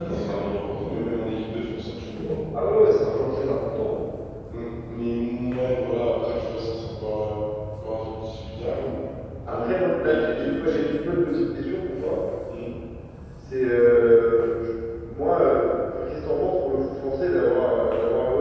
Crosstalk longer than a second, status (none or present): present